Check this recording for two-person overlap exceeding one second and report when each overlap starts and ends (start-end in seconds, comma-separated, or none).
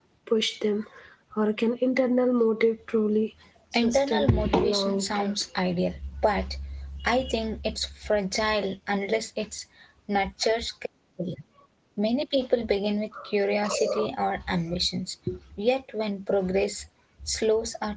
3.8-5.3